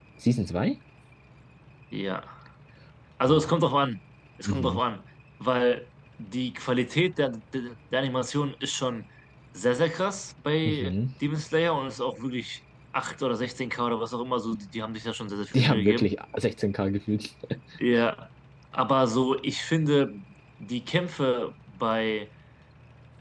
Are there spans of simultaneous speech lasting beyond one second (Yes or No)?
No